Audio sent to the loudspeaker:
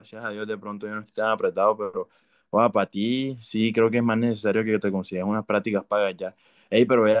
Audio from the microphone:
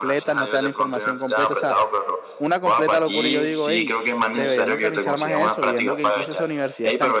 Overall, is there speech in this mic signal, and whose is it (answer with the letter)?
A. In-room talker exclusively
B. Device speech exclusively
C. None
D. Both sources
D